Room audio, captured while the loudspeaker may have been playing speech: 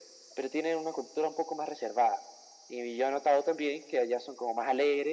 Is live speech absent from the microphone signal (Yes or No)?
Yes